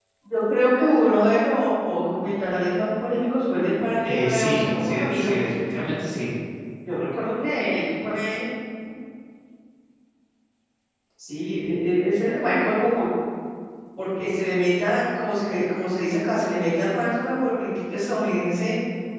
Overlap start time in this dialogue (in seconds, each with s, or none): 4.0 s